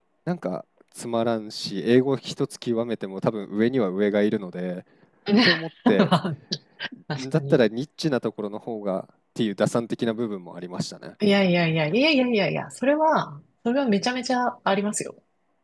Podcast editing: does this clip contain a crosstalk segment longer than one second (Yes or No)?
No